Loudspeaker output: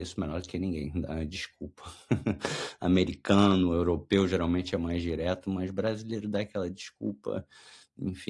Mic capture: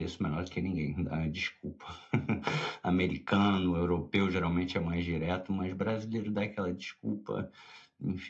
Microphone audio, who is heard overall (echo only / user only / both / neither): echo only